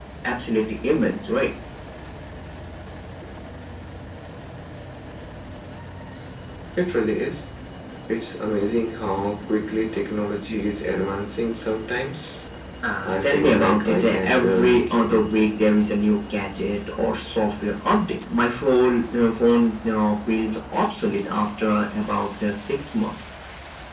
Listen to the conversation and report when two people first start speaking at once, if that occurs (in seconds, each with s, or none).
13.1 s